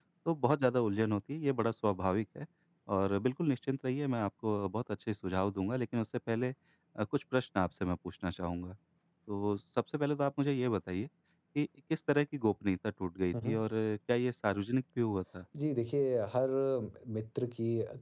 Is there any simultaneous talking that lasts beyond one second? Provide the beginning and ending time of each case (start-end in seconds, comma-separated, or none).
none